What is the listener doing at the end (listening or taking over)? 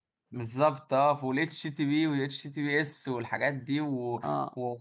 listening